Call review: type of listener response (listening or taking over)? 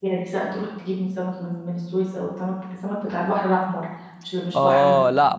taking over